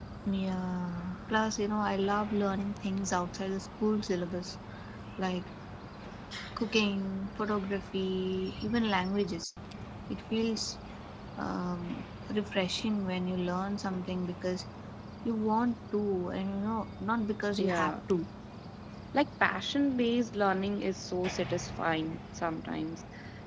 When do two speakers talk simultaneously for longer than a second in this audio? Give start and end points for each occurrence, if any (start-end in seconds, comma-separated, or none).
none